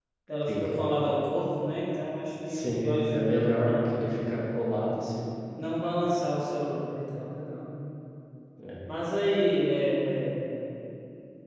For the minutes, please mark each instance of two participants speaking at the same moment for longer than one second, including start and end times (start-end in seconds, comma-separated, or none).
2.5-3.9